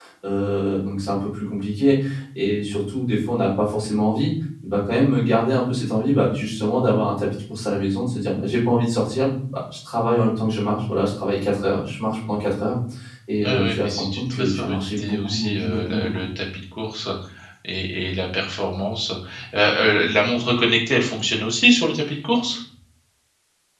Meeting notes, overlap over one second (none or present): present